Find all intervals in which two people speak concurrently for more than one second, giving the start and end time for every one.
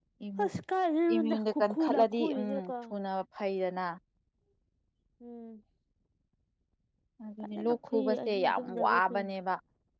1.1-2.7, 7.5-9.2

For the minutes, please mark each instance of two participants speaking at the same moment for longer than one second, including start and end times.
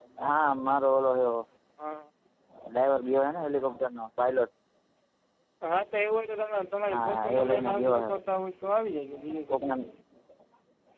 6.9-8.1

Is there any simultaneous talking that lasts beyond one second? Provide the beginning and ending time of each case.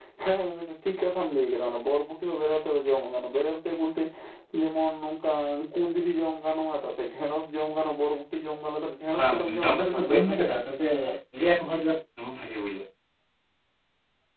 9.2-10.5

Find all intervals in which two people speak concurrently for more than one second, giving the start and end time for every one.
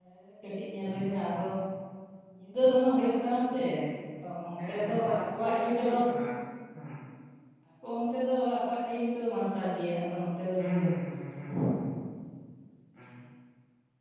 4.6-6.0

